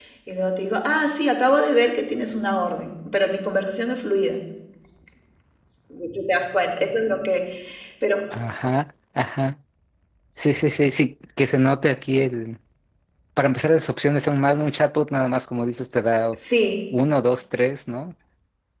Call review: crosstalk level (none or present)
none